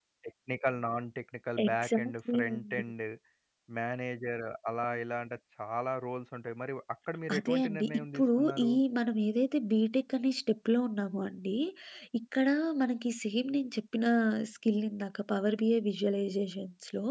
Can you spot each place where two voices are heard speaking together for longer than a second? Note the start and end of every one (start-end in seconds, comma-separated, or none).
1.6-2.8, 7.4-8.7